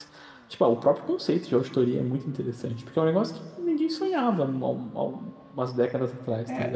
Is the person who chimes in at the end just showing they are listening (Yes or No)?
No